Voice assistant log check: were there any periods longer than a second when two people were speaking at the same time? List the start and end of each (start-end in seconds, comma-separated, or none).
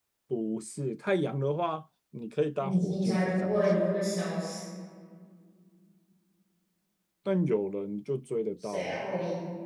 2.6-3.9